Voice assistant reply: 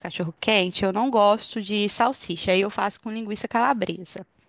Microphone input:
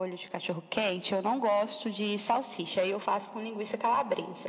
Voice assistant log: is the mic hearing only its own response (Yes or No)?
Yes